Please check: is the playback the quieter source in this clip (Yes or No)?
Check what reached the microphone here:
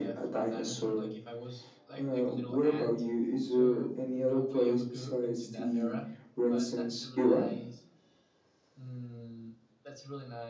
No